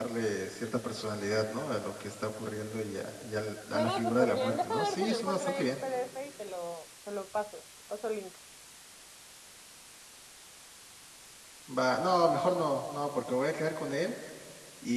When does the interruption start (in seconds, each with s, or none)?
3.7 s